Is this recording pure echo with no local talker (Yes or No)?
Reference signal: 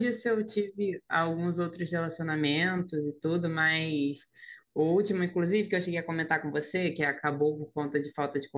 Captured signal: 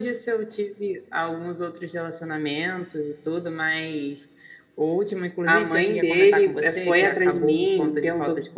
No